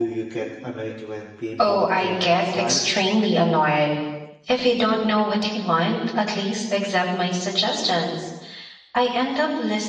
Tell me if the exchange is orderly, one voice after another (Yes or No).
No